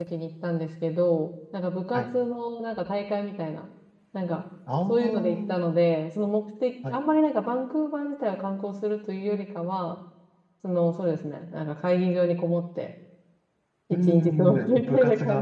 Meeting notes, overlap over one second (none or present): present